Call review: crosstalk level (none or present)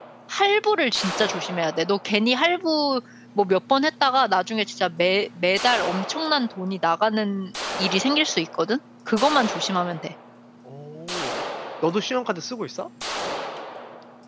none